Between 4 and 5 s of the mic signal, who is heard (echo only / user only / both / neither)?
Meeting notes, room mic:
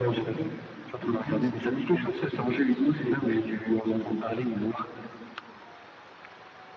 echo only